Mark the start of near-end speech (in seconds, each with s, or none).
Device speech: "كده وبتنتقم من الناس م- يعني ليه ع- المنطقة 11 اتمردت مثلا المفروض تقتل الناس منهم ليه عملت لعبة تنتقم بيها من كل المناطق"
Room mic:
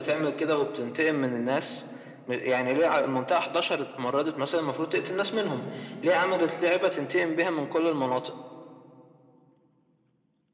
none